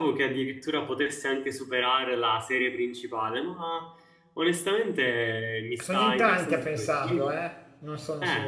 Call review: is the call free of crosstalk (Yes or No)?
No